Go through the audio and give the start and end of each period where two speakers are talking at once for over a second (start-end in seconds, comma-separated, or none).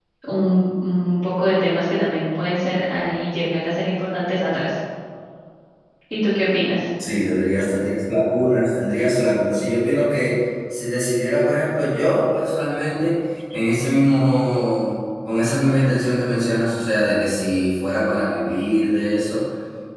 none